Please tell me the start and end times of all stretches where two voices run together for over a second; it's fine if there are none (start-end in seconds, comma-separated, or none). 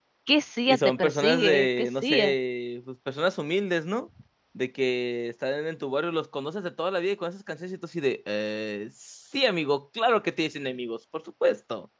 0.7-2.3